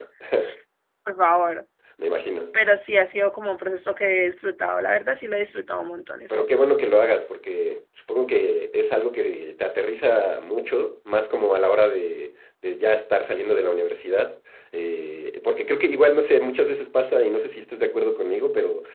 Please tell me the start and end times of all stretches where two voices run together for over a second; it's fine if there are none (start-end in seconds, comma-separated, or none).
none